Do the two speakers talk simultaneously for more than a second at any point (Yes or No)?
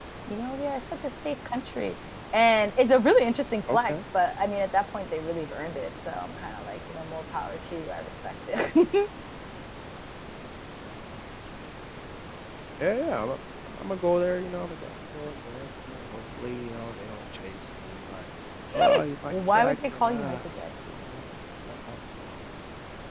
Yes